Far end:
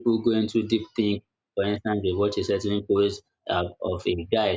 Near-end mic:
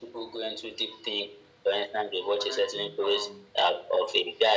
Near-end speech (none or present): present